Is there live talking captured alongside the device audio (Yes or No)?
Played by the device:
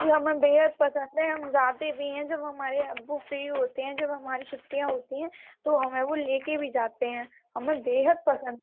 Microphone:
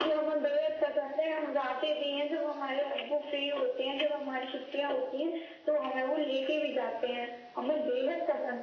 No